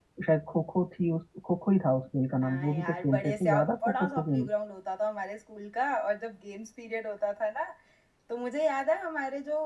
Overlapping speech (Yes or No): Yes